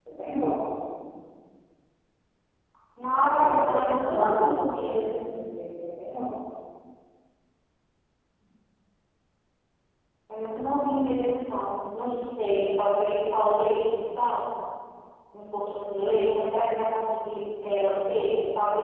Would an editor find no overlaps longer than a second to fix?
No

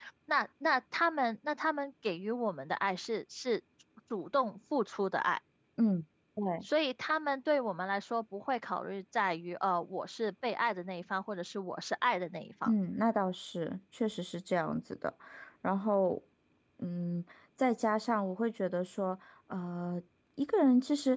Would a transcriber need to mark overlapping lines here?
No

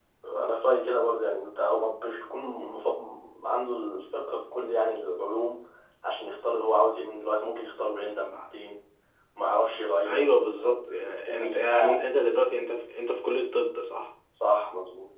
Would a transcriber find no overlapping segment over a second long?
No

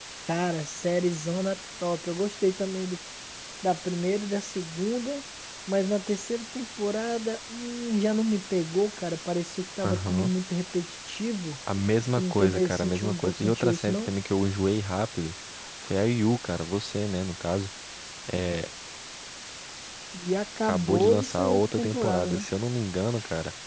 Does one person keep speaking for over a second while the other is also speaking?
Yes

